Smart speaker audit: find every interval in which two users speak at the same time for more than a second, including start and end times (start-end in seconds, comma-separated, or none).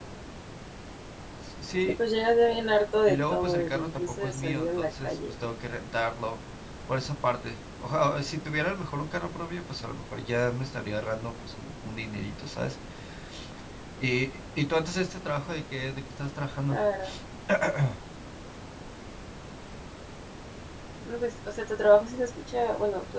3.1-5.2